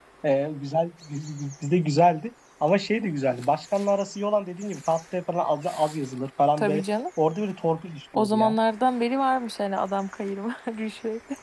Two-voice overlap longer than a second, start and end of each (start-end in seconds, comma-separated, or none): none